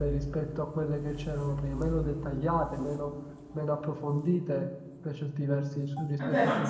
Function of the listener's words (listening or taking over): taking over